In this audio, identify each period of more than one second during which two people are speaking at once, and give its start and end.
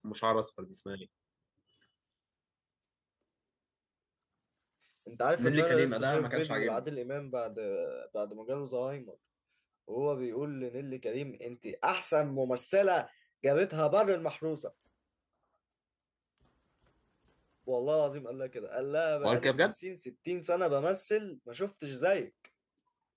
5.4-6.8

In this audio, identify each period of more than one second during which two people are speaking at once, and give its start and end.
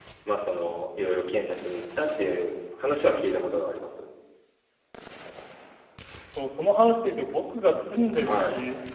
none

